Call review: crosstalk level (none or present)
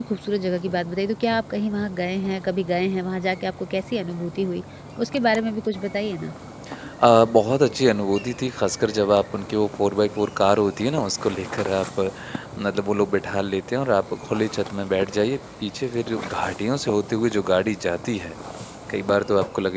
none